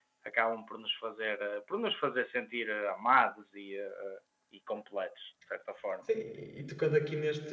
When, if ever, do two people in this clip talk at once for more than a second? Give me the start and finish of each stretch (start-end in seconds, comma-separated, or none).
none